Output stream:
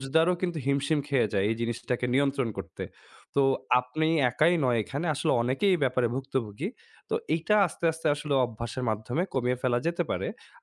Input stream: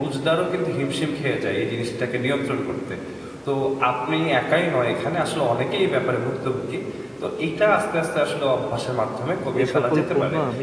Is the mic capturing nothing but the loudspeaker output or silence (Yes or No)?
No